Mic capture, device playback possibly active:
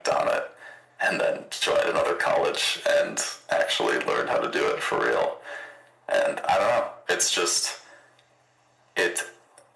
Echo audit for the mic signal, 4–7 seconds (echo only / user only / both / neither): echo only